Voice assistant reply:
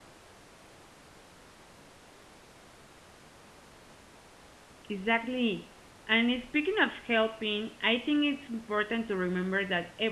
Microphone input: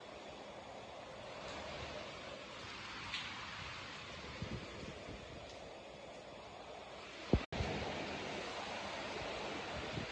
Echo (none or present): none